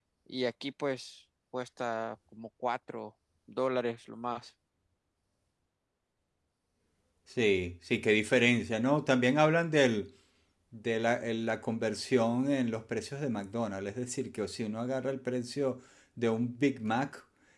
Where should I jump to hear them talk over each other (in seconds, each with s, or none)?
none